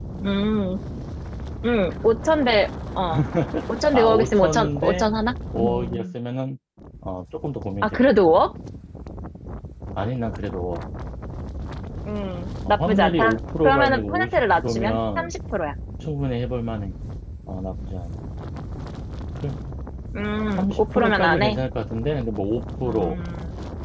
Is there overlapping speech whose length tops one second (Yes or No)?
Yes